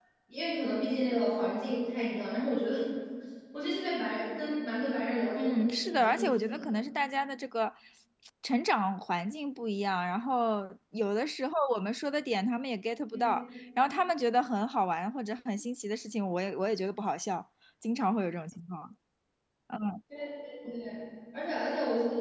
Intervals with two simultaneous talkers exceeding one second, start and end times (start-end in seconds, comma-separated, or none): 5.4-6.6